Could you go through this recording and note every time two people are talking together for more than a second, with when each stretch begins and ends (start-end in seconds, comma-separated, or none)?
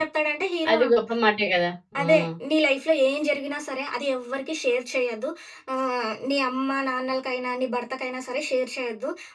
none